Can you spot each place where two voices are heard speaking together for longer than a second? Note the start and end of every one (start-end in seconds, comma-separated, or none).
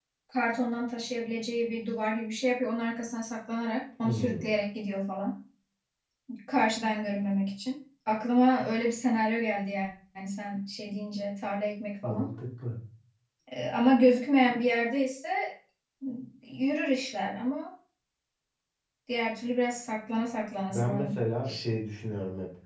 none